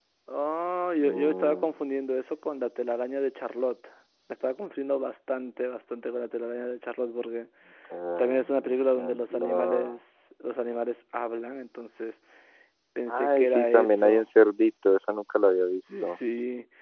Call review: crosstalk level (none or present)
present